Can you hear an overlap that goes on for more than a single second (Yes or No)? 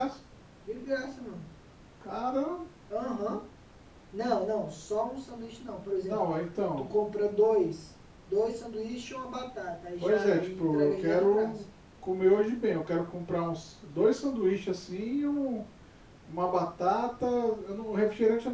Yes